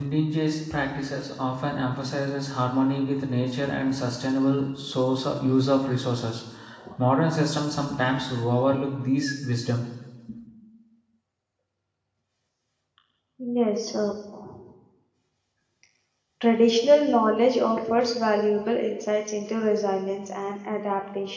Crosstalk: none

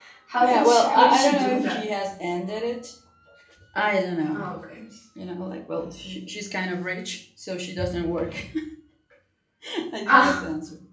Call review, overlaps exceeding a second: present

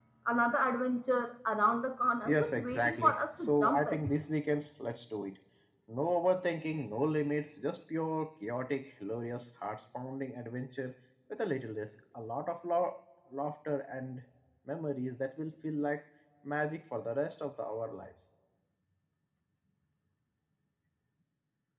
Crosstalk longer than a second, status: present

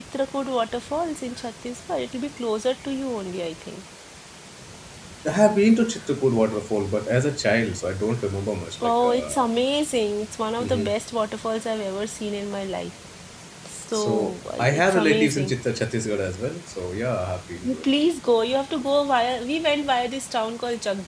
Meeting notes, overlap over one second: present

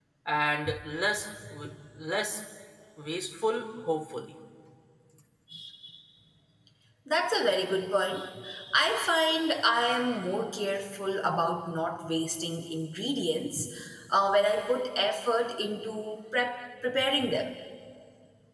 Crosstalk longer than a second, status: none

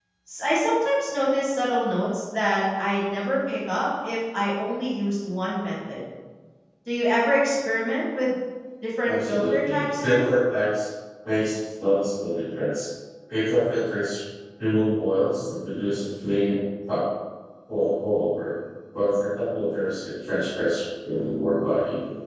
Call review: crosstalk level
present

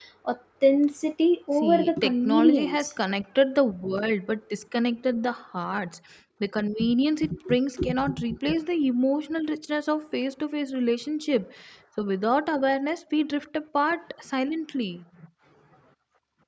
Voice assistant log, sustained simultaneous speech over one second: present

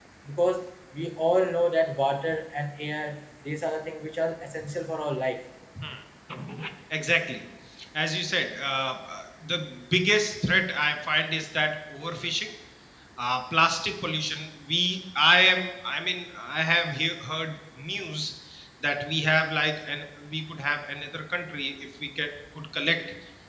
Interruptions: none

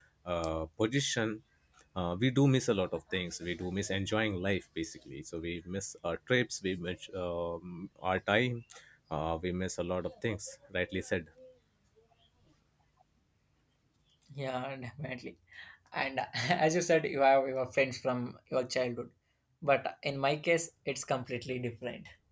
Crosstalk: none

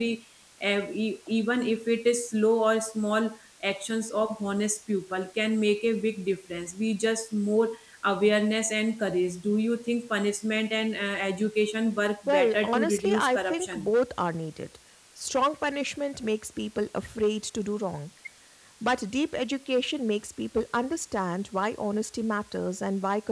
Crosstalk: present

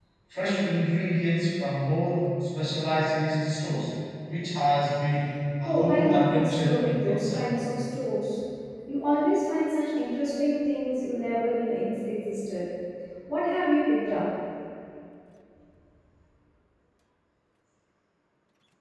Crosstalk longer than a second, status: present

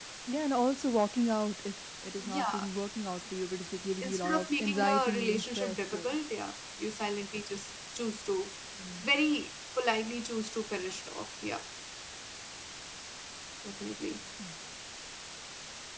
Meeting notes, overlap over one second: present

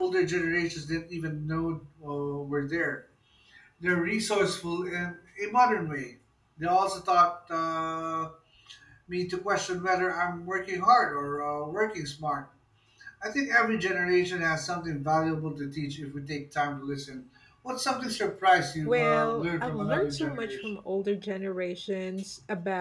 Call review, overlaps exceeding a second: present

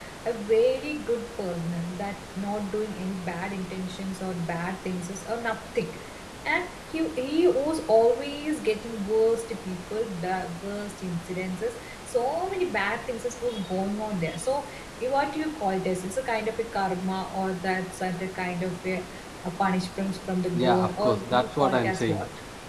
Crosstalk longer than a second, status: present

